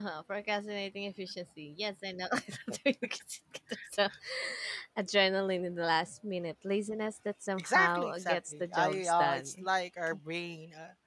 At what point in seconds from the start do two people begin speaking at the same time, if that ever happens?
7.6 s

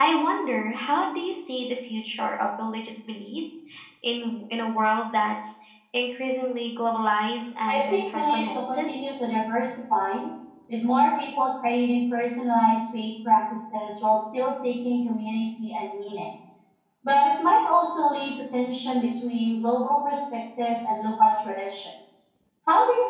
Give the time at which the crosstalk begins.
7.7 s

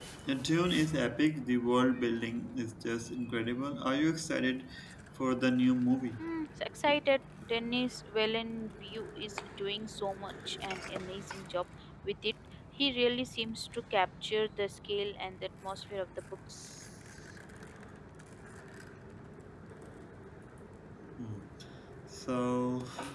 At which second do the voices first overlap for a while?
none

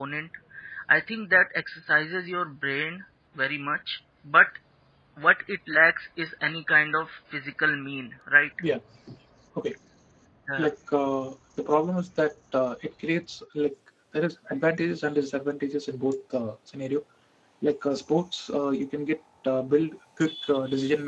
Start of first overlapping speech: none

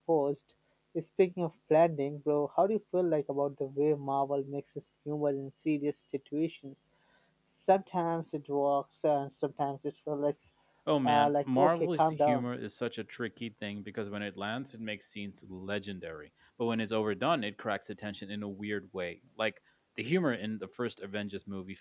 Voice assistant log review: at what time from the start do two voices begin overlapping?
11.1 s

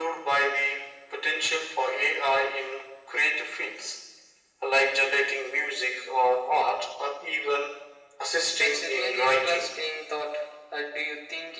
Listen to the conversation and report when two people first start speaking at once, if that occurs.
8.6 s

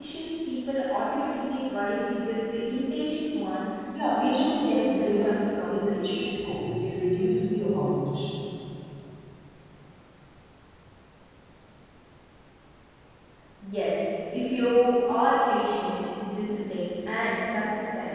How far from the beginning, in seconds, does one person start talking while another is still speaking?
3.9 s

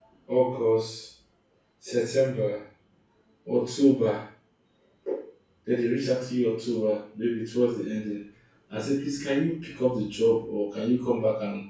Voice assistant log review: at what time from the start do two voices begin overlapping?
none

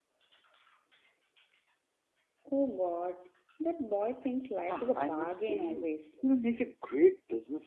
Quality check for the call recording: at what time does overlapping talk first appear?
4.7 s

